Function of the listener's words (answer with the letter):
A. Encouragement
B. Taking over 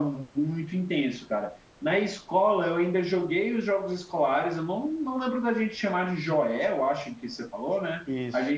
A